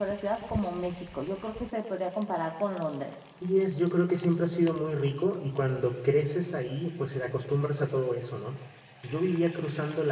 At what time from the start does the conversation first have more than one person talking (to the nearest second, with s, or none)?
none